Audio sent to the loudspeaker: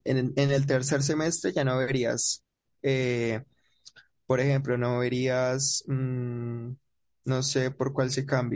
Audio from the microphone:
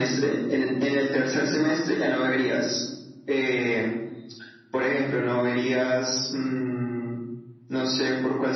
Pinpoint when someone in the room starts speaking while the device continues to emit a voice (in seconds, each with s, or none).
none